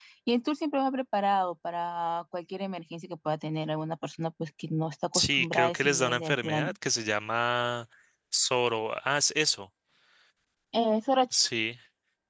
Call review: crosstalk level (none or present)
present